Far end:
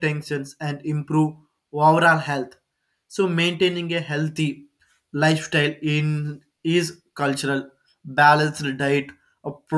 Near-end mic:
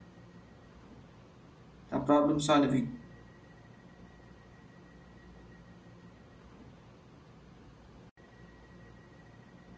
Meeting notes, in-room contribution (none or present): present